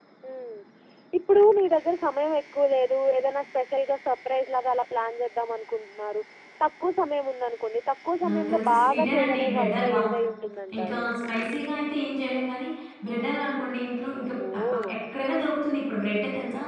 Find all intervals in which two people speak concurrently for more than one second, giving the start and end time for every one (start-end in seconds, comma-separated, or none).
8.3-10.0